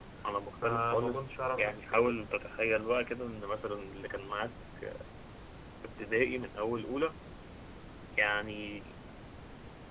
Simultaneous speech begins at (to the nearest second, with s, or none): 1 s